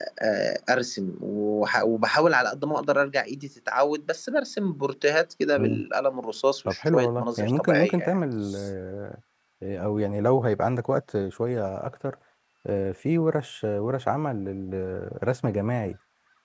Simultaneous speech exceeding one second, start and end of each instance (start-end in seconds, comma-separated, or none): 6.7-8.2